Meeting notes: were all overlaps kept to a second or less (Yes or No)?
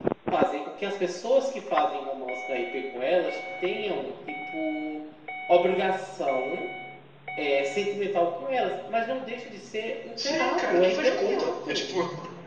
No